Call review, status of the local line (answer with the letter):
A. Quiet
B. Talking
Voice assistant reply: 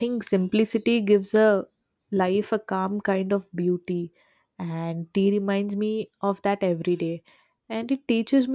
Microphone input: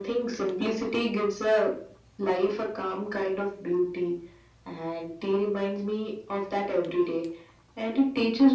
A